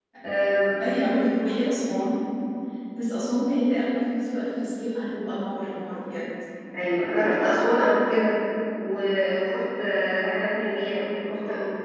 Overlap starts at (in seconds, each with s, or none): none